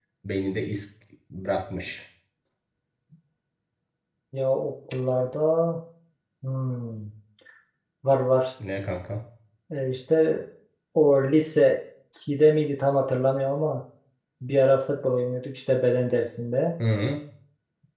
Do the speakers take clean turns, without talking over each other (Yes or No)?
Yes